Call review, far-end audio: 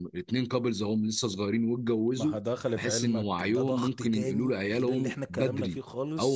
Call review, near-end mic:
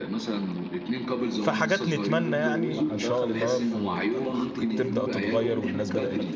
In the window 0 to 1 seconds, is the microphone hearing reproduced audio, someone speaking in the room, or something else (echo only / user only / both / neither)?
echo only